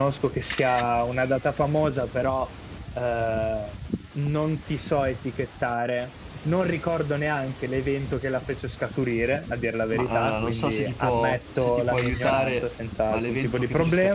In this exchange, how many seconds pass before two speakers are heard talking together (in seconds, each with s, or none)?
9.9 s